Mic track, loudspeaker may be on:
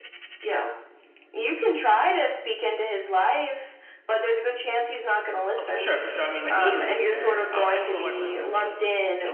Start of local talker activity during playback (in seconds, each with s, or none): 5.6 s